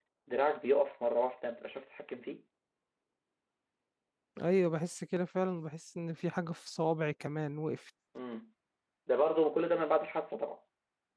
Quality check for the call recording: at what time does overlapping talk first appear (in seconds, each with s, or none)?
none